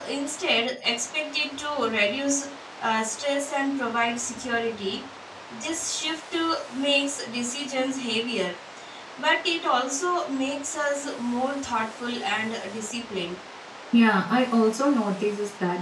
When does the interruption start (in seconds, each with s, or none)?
none